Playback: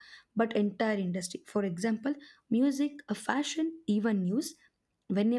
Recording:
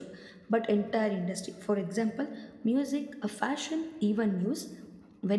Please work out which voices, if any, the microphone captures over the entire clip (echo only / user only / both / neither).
echo only